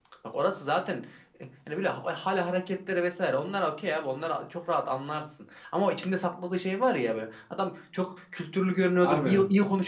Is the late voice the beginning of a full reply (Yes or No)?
No